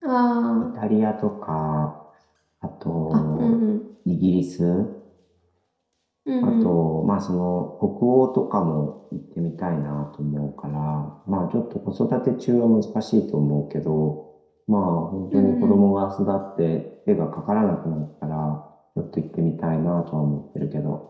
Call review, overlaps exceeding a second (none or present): none